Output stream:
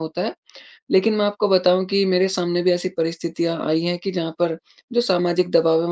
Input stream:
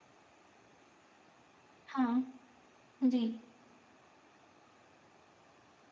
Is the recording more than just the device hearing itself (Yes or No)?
Yes